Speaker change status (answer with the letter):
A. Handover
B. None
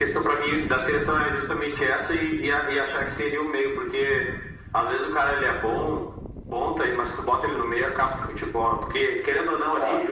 B